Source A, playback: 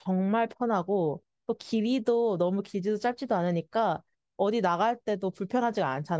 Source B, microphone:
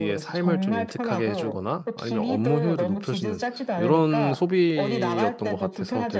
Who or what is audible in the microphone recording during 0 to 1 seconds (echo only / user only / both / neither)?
both